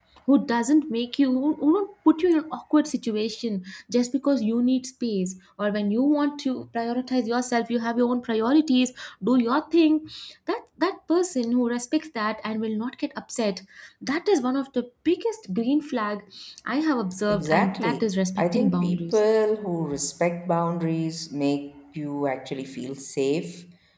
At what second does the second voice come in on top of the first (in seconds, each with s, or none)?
17.3 s